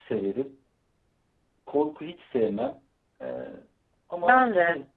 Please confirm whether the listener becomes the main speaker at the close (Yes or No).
No